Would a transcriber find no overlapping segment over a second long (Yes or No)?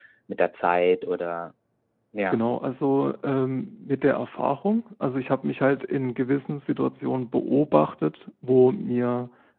Yes